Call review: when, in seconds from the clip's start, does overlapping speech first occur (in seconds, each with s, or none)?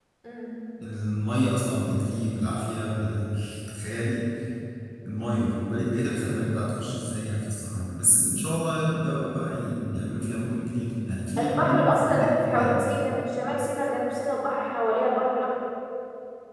11.4 s